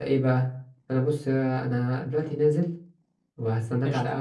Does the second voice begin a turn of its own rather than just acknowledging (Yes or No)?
No